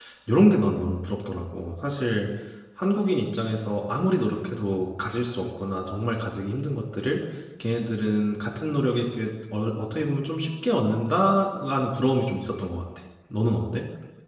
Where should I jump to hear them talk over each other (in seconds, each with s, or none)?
none